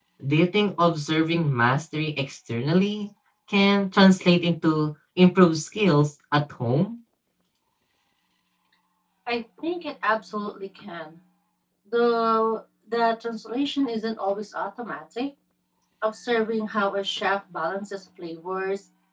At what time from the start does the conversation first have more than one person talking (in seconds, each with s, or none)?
none